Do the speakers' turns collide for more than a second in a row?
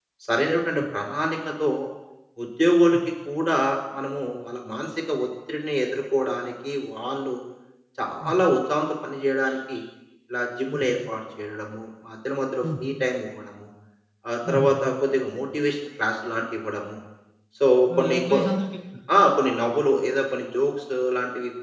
No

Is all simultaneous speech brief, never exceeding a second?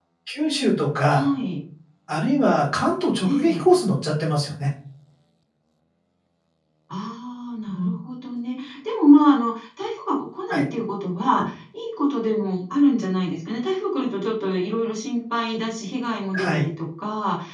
Yes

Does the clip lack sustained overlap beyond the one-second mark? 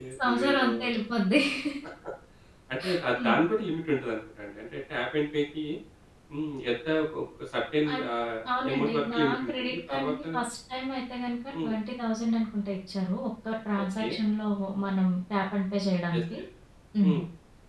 No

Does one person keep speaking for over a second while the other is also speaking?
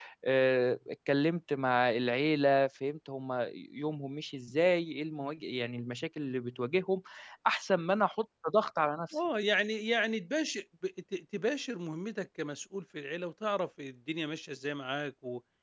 No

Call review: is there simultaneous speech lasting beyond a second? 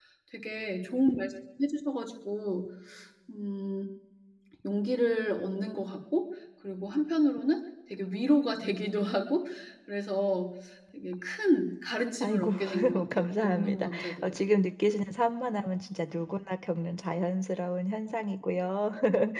Yes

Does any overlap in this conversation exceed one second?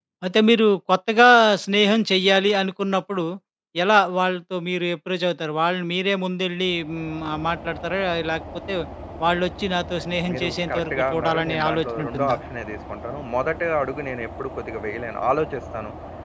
Yes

